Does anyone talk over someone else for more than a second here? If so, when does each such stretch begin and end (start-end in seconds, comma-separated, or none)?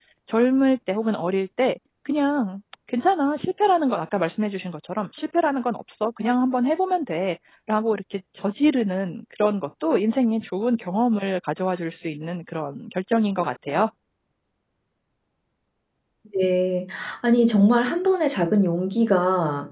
none